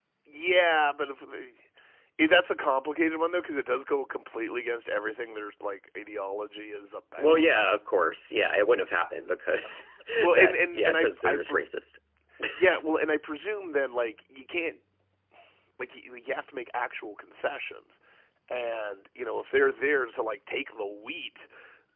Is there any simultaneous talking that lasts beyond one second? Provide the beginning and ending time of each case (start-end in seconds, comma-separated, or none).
10.2-11.7